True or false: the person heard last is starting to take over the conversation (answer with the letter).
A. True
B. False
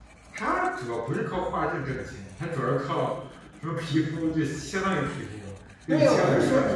A